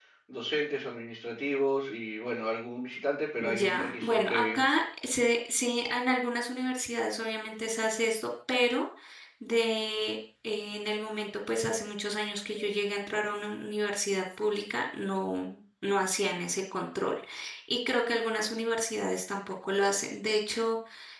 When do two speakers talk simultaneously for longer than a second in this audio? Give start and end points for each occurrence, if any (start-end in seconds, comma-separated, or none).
3.4-4.6